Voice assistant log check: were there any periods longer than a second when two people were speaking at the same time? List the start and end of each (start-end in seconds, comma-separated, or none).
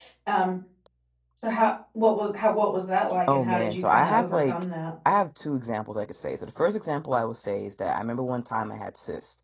3.3-4.6